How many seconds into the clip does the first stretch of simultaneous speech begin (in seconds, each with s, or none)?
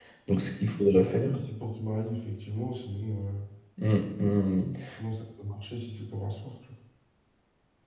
none